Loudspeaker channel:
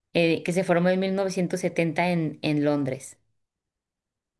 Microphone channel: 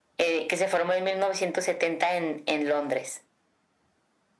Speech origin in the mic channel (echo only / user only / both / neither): echo only